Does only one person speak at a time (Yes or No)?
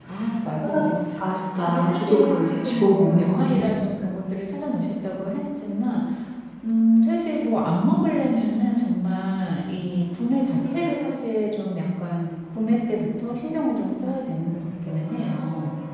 No